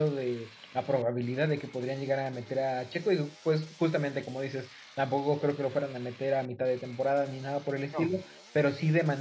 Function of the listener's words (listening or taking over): listening